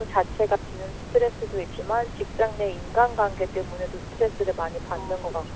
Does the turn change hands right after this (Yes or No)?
Yes